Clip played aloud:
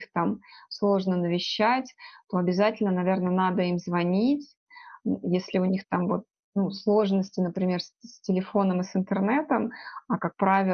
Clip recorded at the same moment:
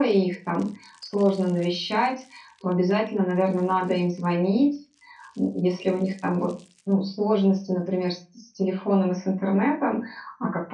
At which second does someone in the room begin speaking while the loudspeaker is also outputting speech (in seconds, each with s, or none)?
none